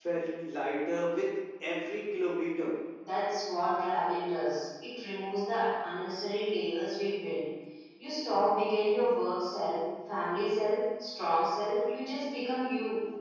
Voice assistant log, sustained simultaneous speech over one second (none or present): none